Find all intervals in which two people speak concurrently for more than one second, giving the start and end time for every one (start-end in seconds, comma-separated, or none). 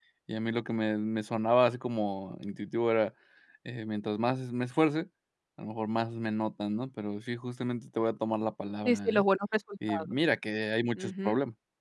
none